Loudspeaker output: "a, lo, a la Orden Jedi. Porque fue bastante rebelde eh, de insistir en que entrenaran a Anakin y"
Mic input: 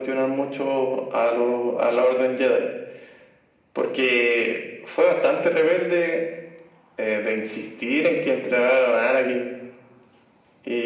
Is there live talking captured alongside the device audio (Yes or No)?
No